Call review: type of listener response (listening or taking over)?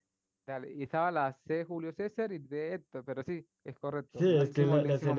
taking over